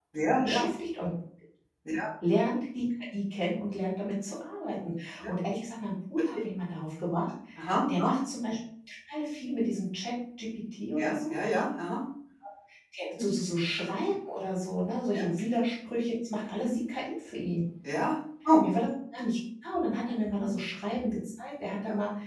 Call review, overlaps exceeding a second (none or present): none